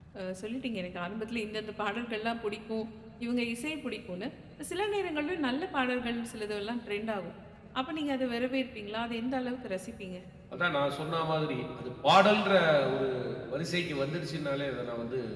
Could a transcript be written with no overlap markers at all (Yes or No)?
Yes